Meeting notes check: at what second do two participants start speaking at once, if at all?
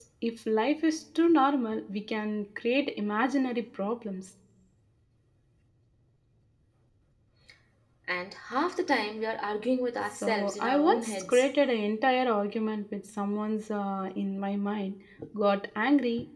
10 s

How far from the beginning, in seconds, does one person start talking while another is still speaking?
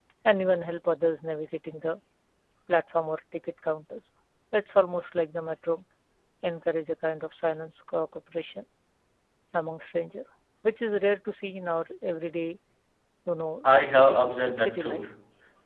14 s

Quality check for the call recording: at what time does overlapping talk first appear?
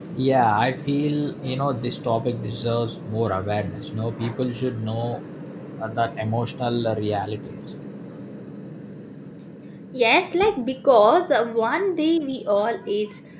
none

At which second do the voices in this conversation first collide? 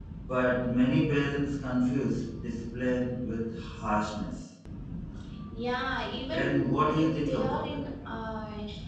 6 s

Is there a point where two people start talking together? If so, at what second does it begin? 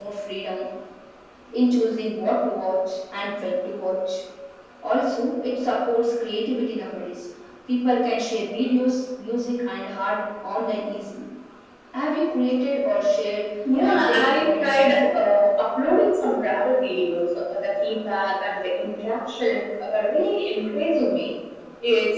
14 s

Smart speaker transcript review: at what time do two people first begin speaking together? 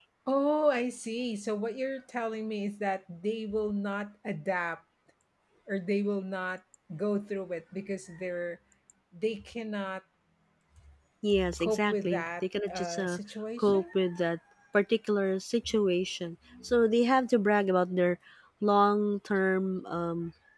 12 s

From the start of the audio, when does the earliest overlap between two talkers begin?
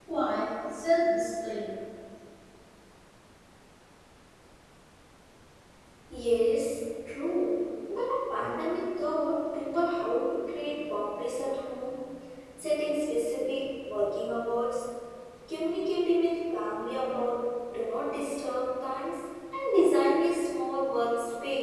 none

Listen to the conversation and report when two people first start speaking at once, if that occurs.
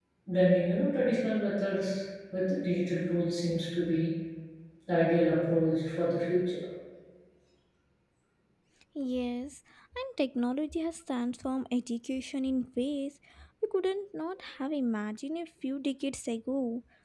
none

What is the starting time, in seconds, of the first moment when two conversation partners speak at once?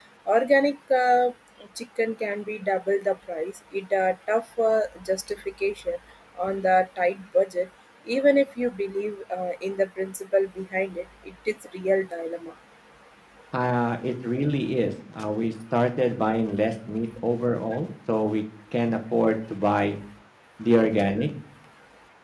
none

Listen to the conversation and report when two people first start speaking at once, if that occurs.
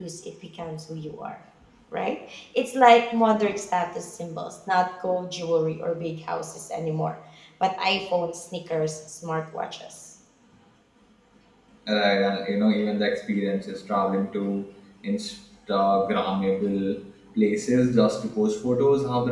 none

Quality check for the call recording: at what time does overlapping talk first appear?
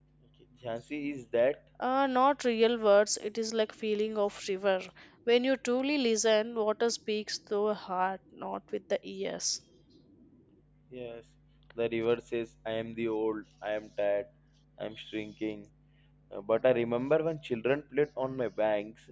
none

